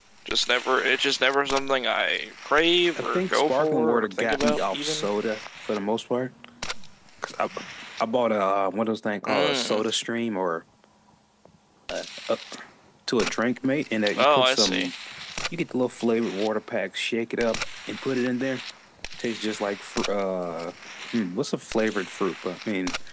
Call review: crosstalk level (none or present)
present